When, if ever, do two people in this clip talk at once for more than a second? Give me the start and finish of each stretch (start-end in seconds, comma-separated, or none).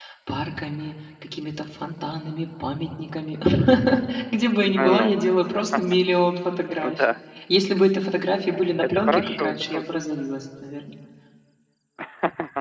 8.8-10.0